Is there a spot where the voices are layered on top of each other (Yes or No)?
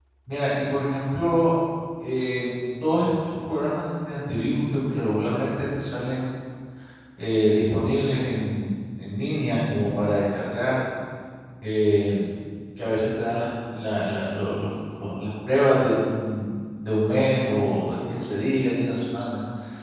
No